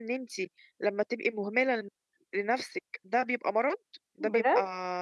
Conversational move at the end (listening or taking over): listening